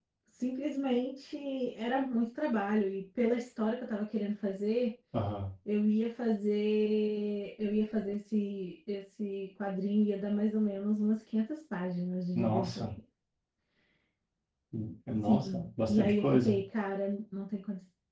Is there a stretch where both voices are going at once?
Yes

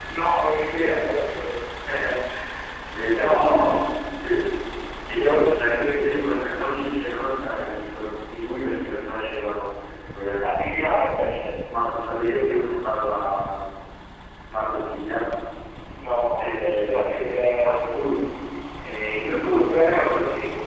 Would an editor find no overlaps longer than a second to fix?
No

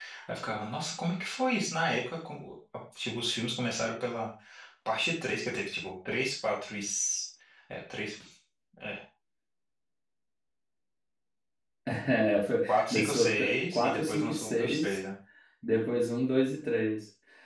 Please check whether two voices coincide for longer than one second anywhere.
Yes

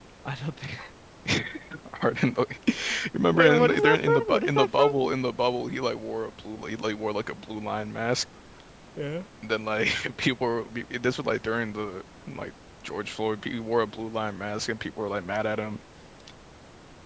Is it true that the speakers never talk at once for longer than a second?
No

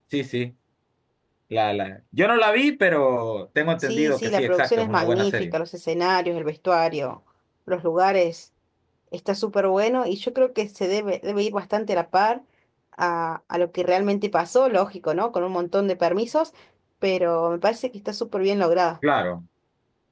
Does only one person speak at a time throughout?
No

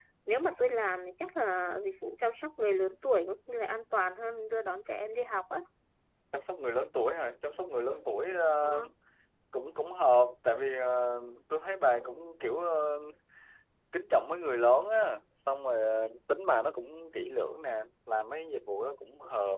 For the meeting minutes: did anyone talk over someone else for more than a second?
No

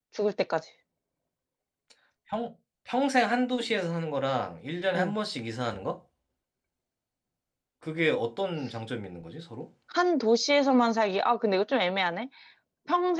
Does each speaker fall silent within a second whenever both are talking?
Yes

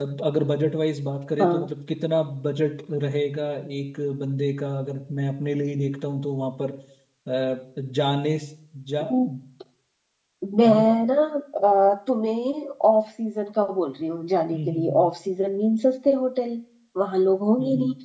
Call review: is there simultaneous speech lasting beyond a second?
No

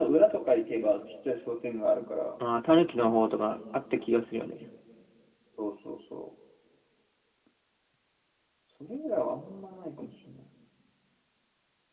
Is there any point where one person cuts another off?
No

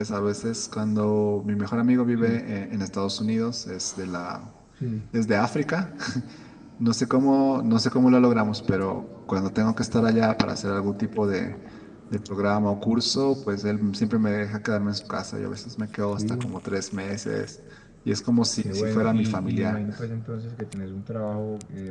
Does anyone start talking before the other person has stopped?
Yes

